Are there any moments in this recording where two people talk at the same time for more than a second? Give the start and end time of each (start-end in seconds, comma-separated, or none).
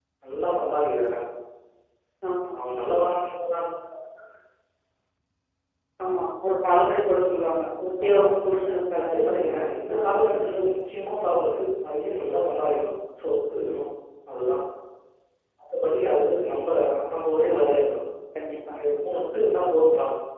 9.1-10.3